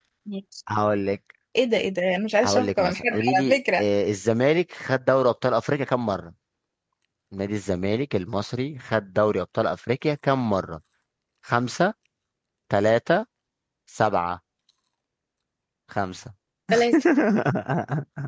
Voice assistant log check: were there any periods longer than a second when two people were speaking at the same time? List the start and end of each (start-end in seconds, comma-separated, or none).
2.4-3.8